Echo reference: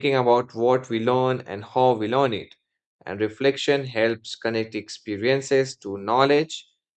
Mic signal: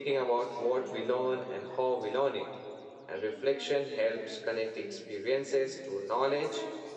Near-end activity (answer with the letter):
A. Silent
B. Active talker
B